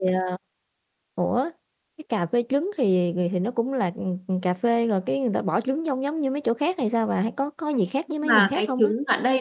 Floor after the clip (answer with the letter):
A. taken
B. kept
A